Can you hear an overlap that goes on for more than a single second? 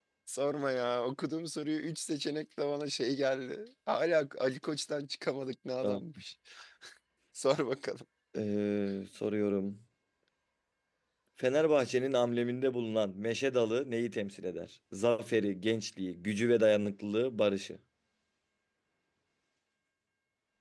No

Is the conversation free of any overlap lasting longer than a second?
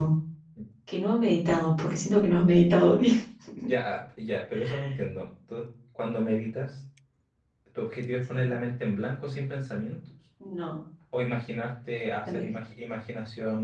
Yes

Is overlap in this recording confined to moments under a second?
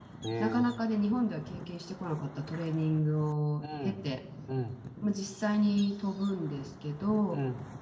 Yes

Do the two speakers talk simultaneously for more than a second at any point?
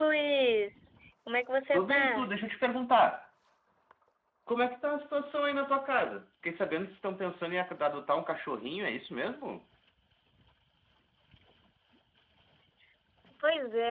No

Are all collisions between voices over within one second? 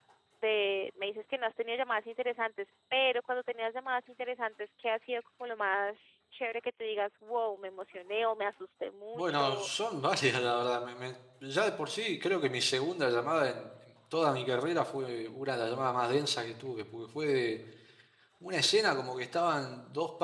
Yes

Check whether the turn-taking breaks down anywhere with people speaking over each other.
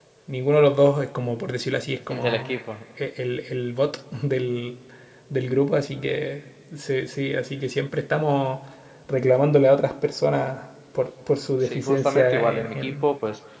Yes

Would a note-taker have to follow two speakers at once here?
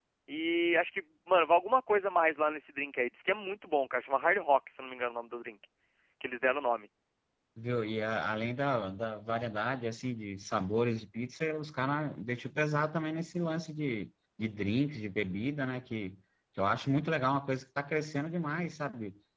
No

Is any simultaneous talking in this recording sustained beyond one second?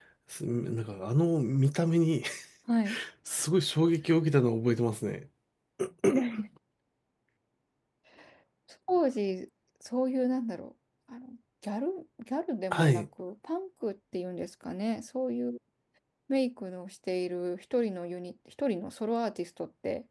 No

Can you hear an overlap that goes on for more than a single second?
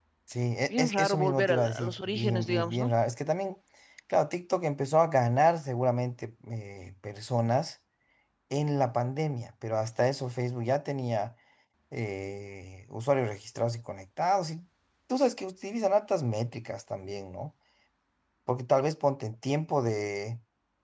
Yes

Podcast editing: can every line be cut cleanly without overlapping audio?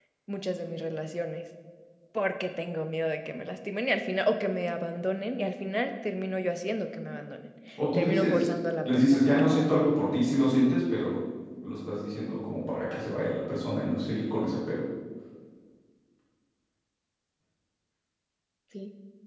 No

